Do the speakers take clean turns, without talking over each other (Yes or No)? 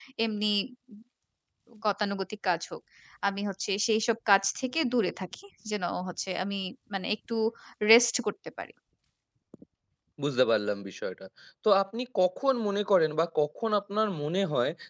Yes